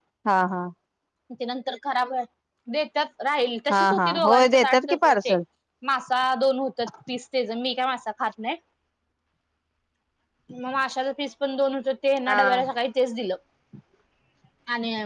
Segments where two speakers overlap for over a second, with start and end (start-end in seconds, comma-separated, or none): 3.7-5.4